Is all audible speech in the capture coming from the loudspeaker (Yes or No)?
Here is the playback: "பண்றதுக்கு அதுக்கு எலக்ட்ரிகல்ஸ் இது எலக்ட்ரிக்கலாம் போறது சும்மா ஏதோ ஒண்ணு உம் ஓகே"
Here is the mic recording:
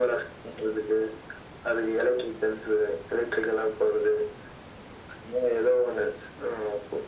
Yes